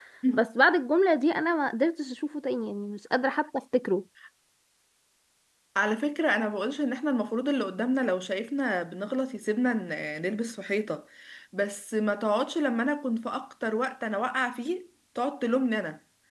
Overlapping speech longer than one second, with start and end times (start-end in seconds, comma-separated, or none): none